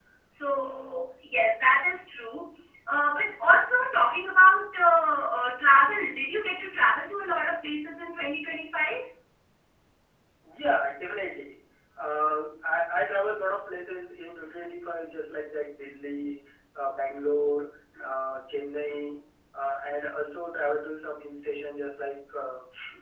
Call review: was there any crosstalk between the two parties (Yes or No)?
No